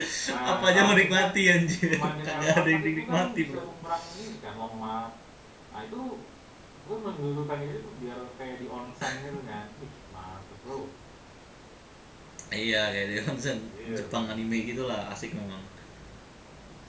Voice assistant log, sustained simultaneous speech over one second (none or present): present